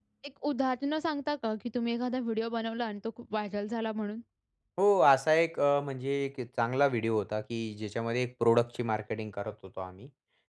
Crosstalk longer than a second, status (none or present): none